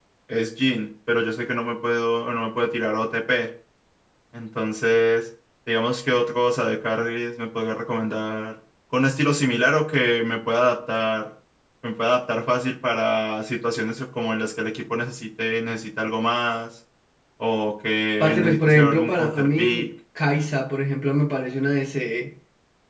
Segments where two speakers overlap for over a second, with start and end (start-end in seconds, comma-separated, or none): 18.2-19.9